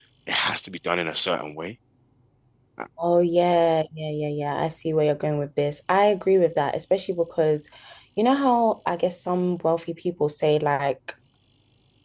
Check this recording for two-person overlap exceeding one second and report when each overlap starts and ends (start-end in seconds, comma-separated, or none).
none